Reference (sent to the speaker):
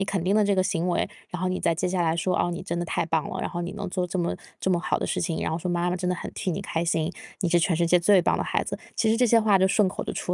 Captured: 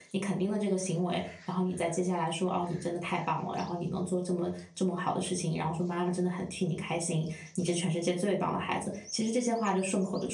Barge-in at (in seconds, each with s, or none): none